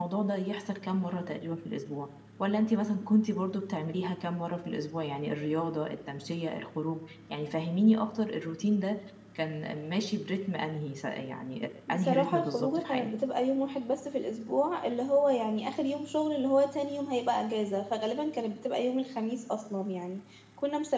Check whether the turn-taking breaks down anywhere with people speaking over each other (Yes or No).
Yes